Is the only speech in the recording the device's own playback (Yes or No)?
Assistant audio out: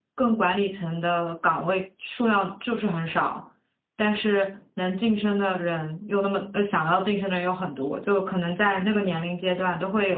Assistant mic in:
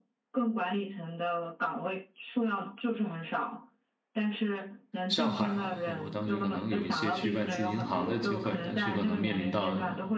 No